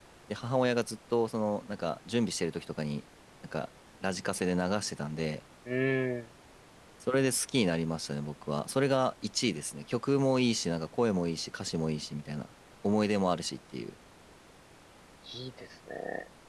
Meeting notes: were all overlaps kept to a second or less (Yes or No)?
Yes